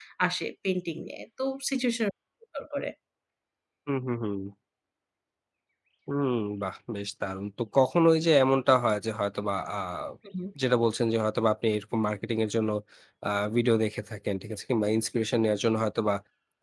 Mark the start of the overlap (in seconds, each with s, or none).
none